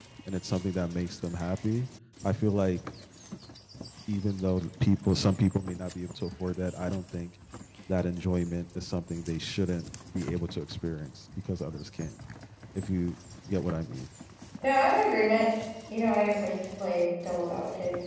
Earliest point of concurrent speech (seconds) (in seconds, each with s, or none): none